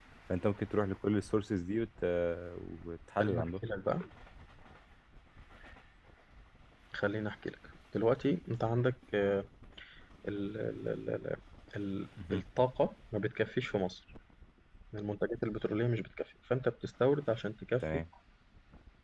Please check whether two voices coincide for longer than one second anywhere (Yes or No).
No